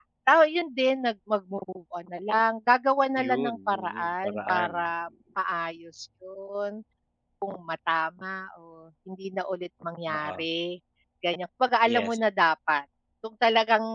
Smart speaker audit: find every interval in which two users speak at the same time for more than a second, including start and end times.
3.2-4.7

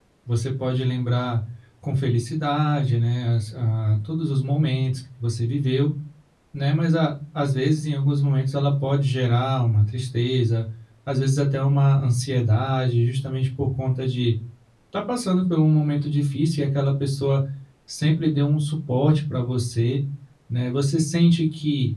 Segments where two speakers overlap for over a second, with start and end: none

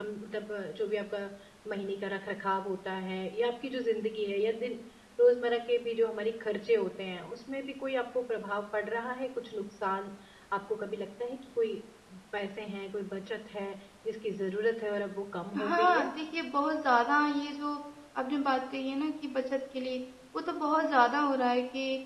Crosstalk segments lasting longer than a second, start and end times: none

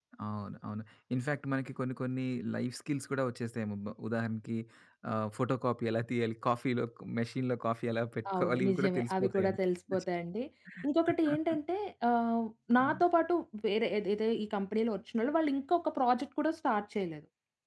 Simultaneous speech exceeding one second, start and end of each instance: 8.3-9.6

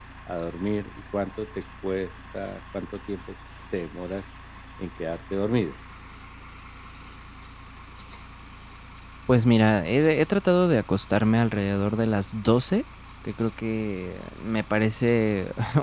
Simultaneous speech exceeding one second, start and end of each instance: none

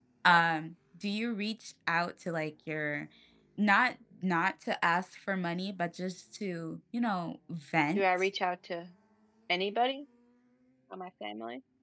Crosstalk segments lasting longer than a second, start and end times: none

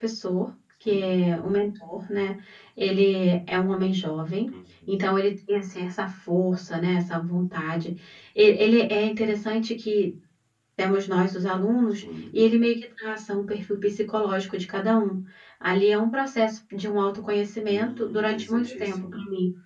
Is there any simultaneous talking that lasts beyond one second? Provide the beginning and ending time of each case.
17.7-19.1

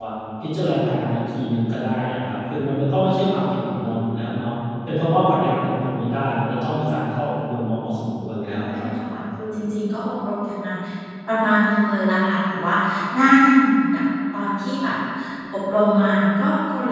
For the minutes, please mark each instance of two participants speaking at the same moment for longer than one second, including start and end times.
none

